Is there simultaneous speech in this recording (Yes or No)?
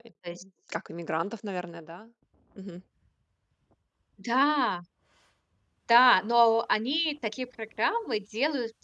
No